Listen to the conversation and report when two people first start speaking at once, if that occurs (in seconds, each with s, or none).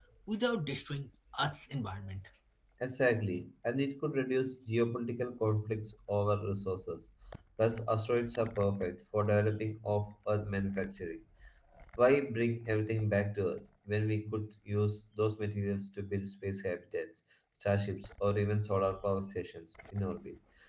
none